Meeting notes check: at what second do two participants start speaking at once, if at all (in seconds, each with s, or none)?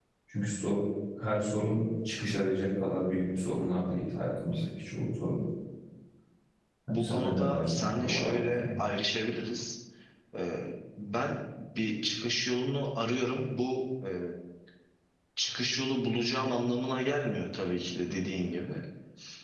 6.9 s